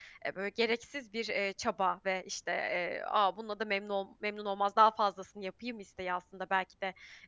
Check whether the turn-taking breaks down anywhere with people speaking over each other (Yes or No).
No